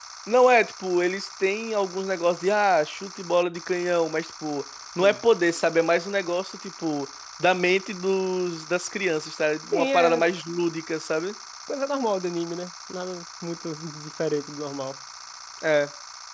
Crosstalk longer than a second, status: none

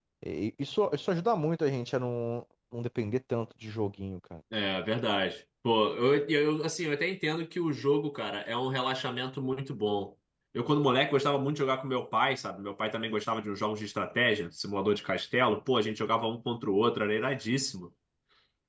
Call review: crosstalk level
none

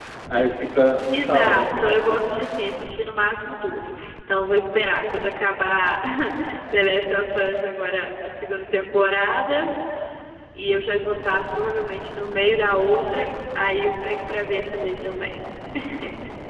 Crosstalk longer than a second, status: present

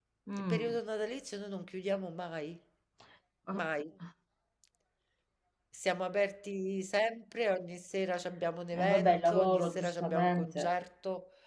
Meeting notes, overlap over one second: present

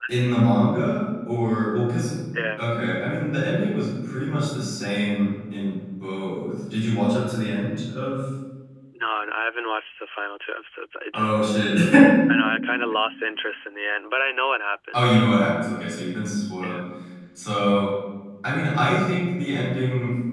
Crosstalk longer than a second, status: none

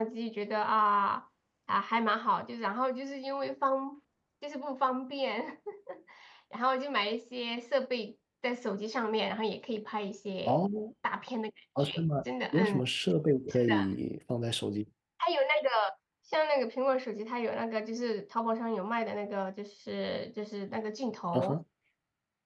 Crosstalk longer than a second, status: none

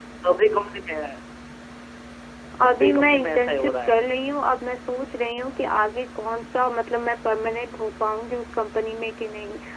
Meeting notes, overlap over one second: present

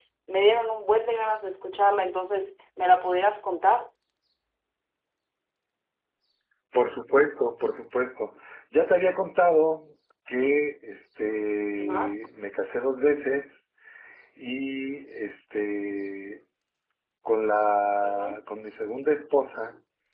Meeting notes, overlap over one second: none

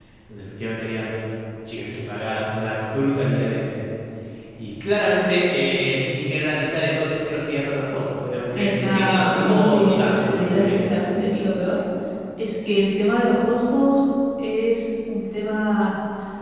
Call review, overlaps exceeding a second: present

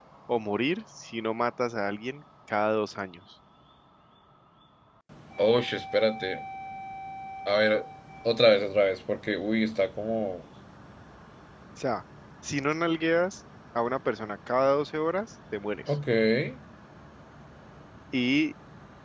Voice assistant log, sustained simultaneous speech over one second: none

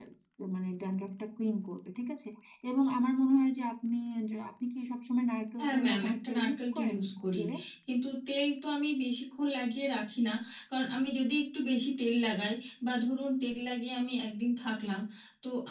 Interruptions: present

